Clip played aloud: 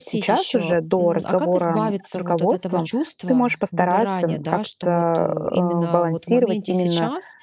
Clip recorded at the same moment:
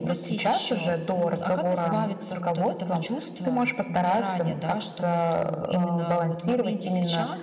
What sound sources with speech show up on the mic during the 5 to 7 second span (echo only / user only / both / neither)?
echo only